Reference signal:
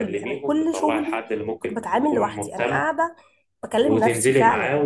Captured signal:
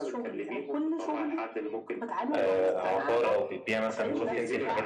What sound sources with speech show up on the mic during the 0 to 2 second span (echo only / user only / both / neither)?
echo only